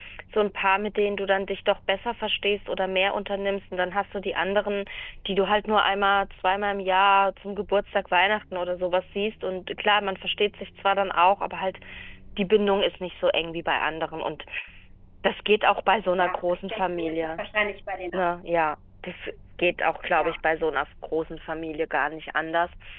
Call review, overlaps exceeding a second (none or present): present